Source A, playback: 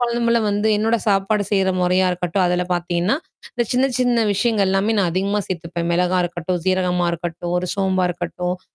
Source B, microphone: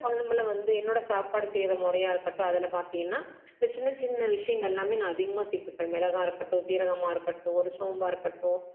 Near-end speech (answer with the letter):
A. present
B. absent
B